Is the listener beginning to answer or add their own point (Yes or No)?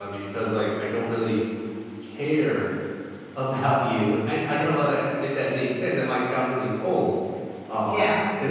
No